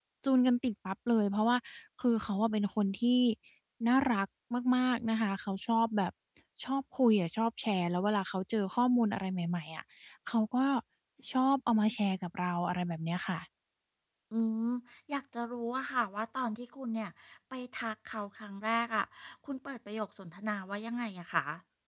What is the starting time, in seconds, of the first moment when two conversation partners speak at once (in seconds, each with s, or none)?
none